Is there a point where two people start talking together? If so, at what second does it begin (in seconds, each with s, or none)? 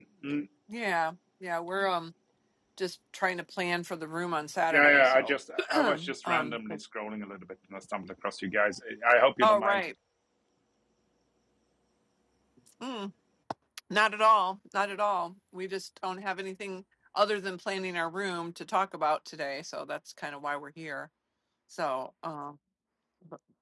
4.7 s